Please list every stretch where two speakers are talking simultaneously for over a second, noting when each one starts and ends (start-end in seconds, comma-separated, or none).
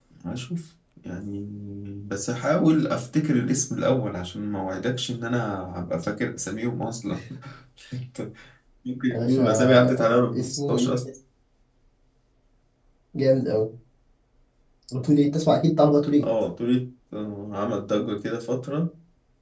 9.1-11.0